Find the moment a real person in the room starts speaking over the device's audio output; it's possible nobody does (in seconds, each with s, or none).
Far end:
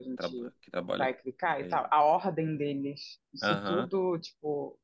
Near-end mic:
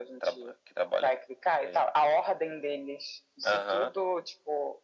none